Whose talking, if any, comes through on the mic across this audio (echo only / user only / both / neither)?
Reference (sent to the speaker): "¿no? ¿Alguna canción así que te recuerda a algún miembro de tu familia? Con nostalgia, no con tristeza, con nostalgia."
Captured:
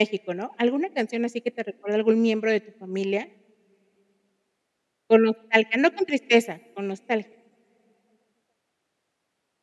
echo only